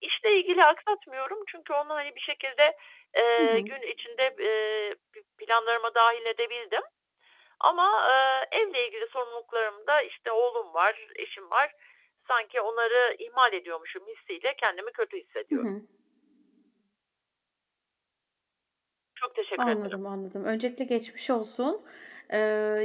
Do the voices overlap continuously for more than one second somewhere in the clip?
No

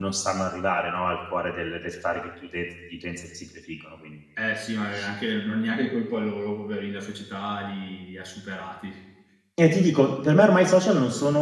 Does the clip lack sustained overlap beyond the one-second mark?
Yes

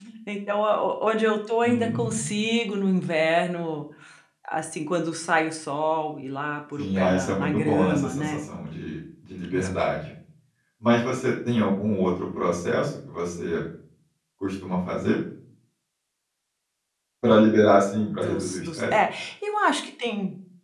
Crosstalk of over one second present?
Yes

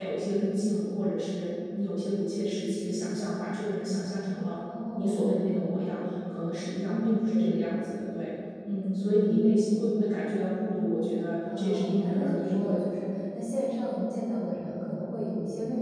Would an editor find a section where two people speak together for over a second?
Yes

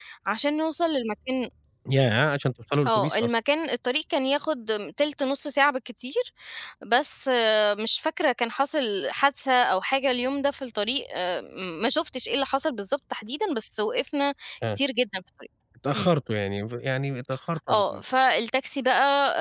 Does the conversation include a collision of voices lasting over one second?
No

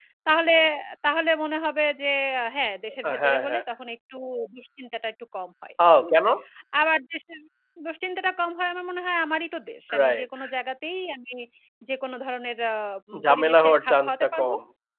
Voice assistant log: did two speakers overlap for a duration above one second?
Yes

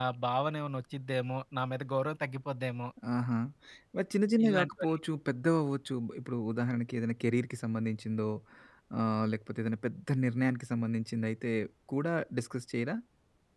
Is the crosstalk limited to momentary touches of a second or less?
Yes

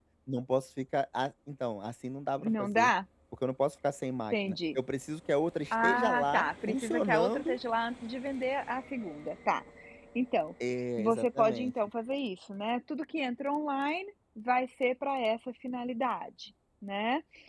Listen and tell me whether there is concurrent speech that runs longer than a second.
Yes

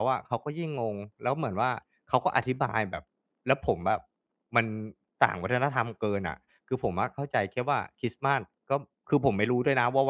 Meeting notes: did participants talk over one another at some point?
No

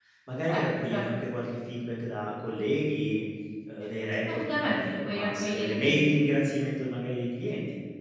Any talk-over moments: Yes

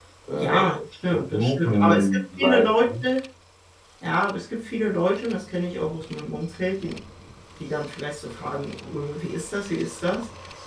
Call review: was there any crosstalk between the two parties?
Yes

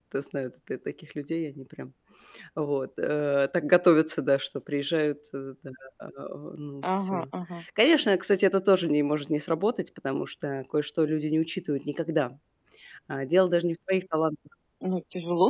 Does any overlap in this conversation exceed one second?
No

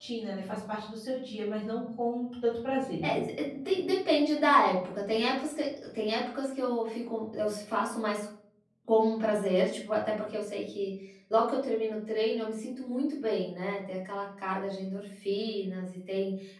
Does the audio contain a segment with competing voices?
No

